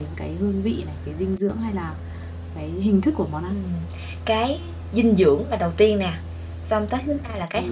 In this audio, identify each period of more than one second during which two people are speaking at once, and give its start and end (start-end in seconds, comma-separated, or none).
none